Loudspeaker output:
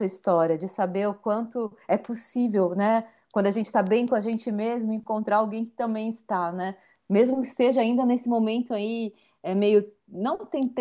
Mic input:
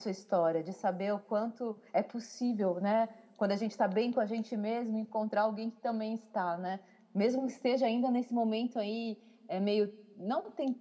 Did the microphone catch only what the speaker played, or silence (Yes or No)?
Yes